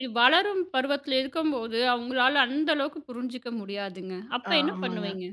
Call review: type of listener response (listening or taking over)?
taking over